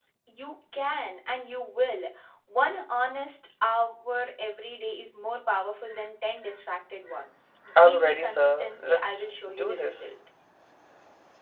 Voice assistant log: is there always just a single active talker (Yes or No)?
No